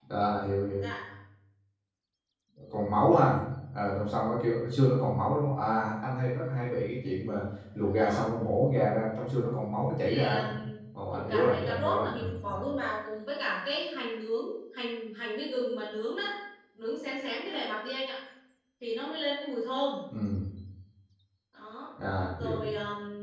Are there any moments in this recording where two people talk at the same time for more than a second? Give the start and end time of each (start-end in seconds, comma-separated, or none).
11.1-12.5